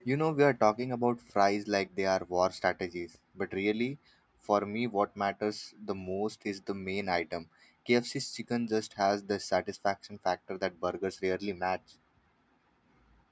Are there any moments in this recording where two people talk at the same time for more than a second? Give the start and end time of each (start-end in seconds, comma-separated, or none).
none